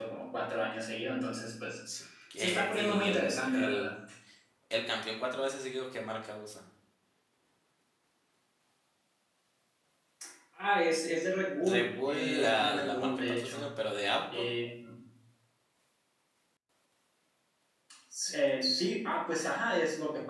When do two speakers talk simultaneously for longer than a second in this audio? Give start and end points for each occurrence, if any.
2.4-3.9, 11.7-13.7

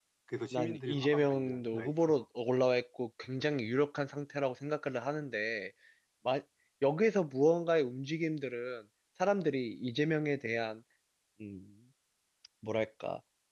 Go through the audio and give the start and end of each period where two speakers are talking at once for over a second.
0.5-2.2

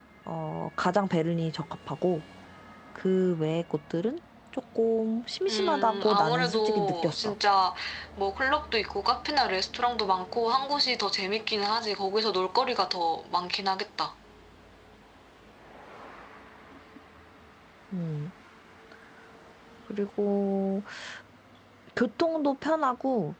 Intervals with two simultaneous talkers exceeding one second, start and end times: 5.5-7.3

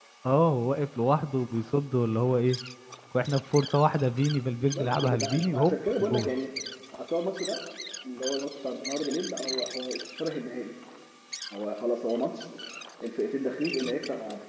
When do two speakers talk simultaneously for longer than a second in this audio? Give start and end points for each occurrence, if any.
4.6-6.3

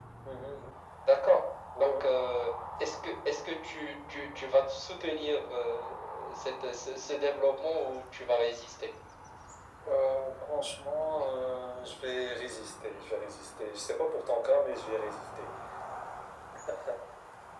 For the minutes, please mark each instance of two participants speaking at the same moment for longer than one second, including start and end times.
none

